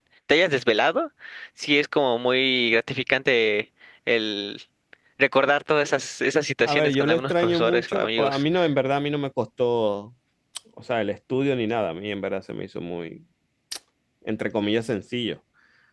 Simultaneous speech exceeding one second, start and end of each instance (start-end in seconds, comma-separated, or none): 6.6-8.4